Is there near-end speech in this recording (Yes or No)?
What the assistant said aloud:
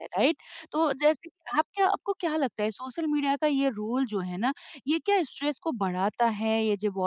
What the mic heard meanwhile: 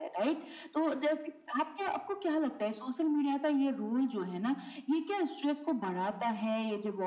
No